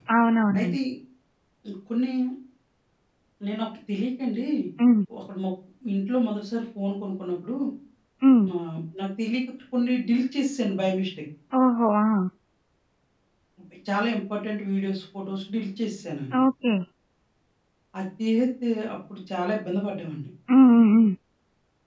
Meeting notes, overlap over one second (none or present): none